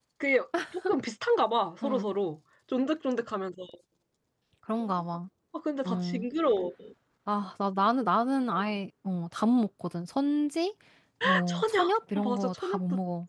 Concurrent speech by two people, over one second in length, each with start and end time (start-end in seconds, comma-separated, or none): 11.5-12.8